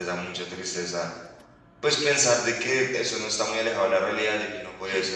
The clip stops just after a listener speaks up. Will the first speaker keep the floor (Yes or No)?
Yes